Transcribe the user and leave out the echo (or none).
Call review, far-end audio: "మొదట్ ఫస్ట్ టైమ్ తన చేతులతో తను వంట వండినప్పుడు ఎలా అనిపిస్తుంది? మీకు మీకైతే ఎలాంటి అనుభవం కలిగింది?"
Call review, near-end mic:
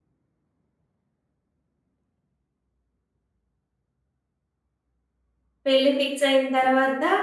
పెళ్లి ఫిక్స్ అయిన తర్వాత